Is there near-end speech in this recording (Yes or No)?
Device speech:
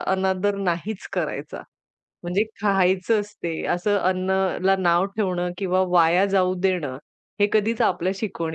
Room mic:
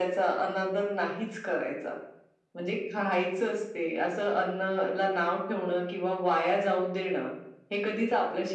No